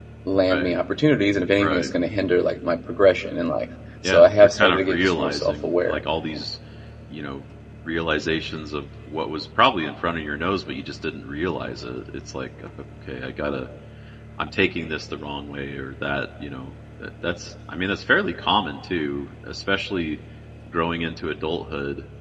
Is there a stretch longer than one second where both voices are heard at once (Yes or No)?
Yes